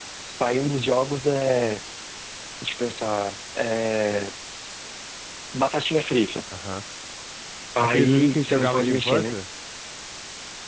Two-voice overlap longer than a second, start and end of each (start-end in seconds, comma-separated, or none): 7.8-9.3